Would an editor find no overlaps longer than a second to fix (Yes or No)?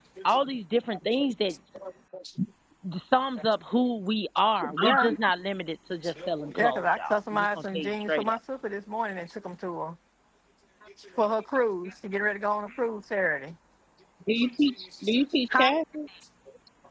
No